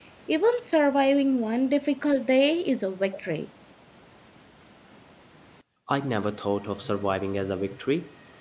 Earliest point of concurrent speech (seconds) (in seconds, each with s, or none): none